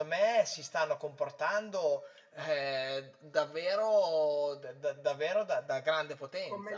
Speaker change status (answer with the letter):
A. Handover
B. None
A